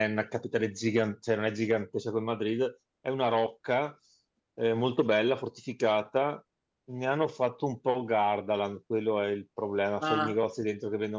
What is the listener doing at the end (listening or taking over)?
listening